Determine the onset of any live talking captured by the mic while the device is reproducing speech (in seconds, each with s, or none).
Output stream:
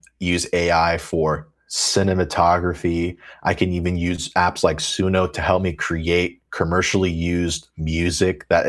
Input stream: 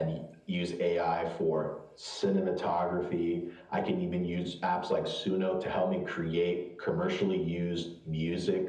none